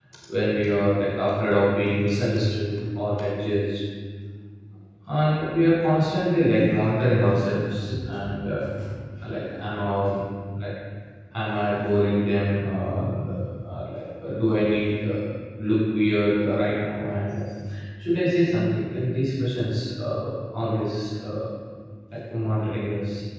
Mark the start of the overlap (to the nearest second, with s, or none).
none